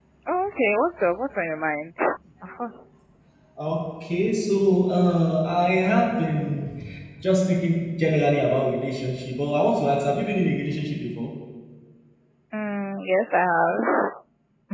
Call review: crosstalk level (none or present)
none